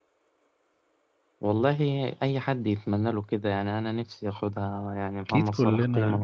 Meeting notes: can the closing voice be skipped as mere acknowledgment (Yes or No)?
No